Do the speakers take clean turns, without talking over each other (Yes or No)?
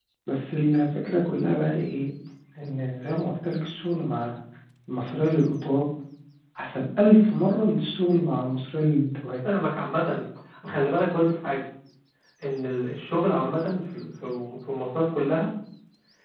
Yes